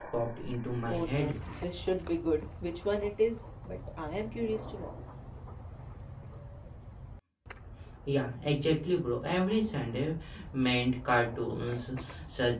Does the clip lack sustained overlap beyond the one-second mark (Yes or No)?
Yes